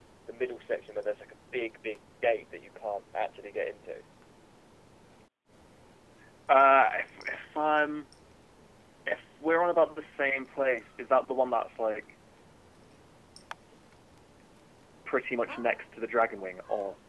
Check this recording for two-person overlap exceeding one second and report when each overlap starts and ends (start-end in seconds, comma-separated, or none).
none